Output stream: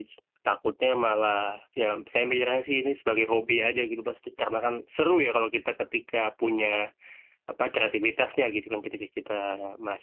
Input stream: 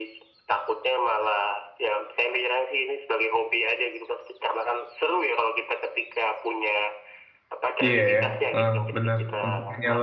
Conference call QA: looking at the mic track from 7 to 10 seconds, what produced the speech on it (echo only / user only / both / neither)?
both